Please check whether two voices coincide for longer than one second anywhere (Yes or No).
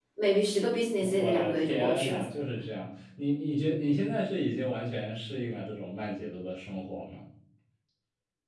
Yes